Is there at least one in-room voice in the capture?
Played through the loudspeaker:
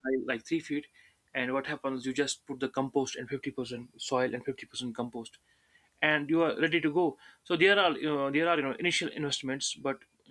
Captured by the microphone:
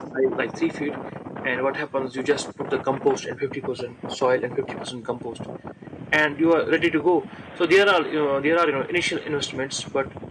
No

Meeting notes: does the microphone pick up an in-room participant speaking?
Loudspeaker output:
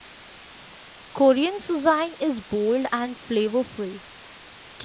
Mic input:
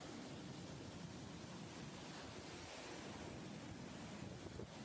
No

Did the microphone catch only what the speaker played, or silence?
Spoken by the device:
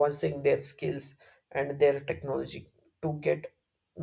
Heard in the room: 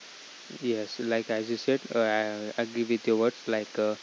No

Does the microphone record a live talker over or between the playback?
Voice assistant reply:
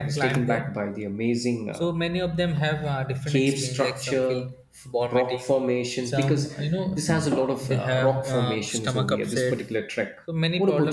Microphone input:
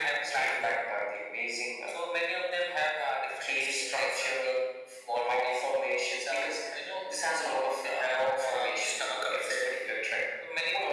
No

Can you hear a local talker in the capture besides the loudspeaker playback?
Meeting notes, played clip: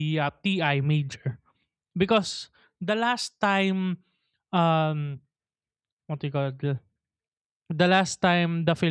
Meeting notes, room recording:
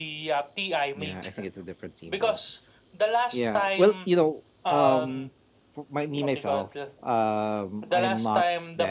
Yes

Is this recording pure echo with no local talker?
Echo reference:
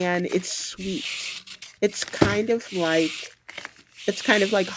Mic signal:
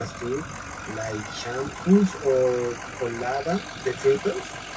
No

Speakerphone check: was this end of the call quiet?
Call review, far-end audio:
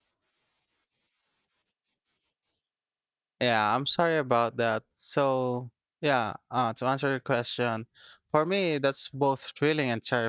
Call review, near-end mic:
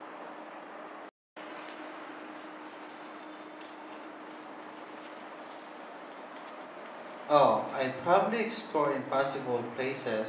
No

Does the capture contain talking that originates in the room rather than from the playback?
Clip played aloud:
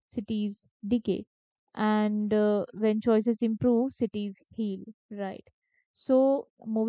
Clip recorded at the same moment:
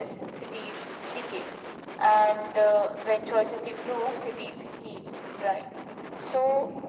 No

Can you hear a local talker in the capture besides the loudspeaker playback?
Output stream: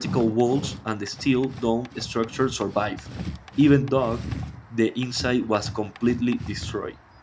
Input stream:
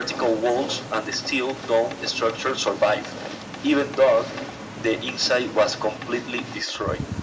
No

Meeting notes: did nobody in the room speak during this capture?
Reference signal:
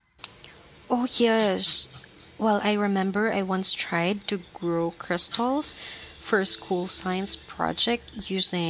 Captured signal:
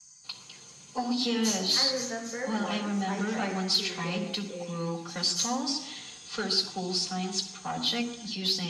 No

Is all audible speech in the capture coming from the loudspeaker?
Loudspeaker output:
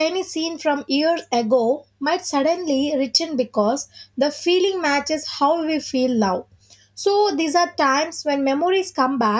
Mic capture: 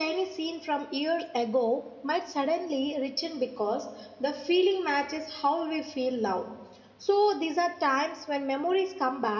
Yes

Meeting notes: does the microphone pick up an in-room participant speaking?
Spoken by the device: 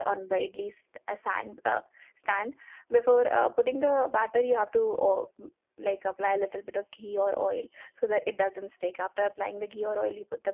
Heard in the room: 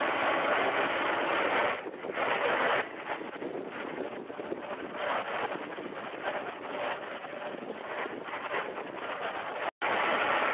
No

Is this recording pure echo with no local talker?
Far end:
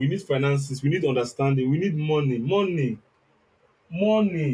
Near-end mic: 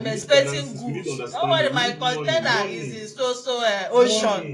No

